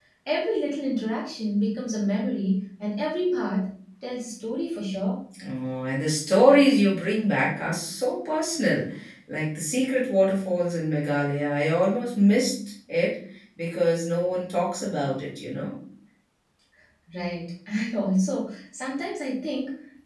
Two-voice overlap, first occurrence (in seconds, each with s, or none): none